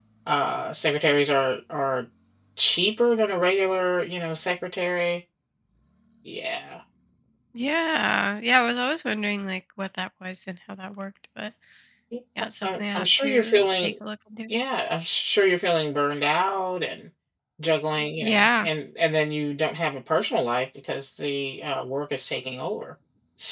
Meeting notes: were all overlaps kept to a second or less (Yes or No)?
No